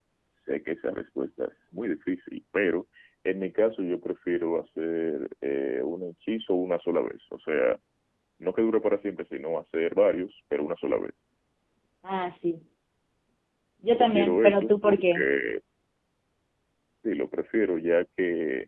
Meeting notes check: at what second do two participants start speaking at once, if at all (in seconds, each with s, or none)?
13.9 s